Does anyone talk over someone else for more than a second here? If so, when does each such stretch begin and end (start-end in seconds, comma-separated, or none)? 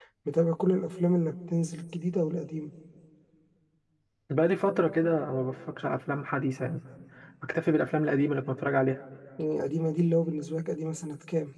none